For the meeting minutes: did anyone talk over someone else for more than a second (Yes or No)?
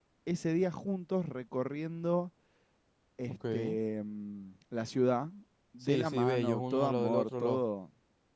Yes